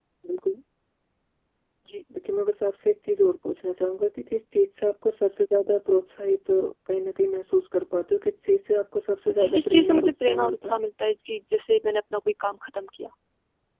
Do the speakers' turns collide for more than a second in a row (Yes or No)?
Yes